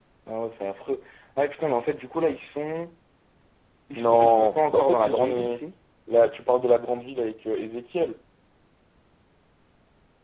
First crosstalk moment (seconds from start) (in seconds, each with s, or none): 3.9 s